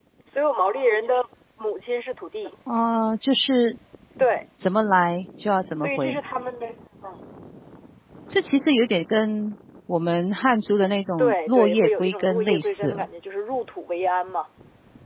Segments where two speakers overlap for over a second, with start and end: 11.2-13.1

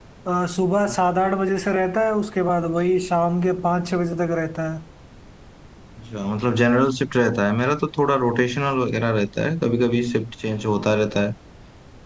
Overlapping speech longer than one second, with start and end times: none

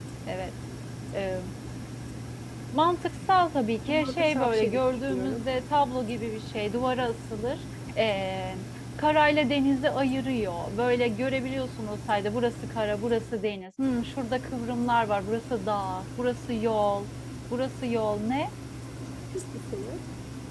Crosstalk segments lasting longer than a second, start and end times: 3.9-5.4

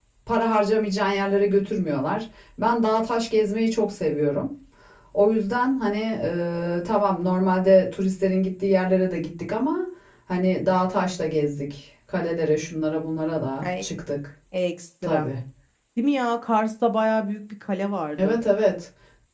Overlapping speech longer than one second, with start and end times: none

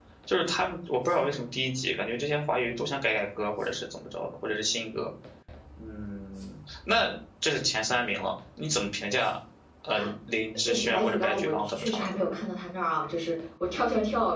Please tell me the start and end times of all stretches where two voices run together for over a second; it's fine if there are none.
10.7-12.3

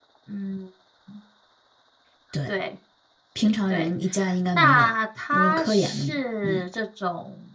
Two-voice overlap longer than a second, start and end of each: 5.3-6.6

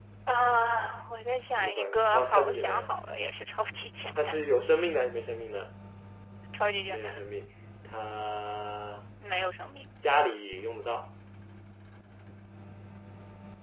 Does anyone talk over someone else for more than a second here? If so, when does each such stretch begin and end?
1.6-2.9

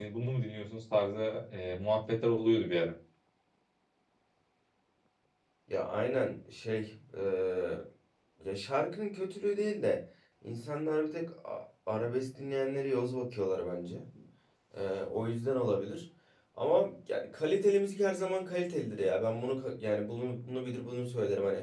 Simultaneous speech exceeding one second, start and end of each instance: none

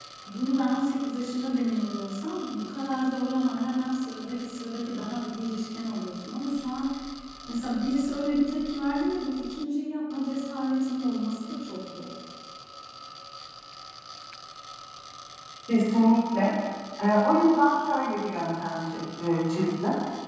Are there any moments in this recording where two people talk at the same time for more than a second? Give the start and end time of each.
none

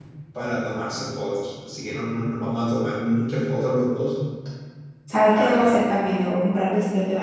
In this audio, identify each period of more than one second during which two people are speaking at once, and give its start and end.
none

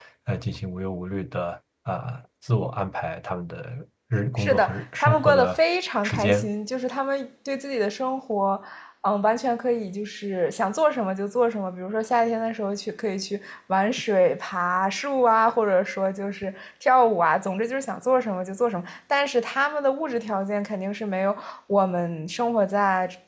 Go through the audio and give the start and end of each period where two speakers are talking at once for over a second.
4.4-5.6

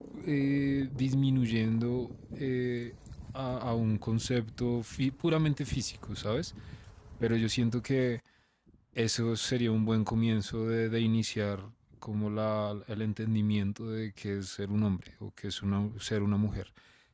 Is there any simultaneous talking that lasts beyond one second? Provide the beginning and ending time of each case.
none

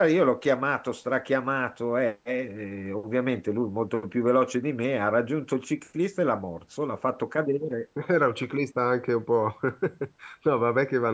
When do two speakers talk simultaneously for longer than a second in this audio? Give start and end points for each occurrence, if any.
none

